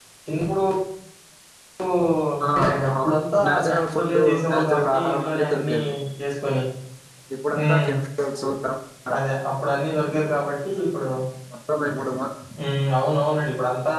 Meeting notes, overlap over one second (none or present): present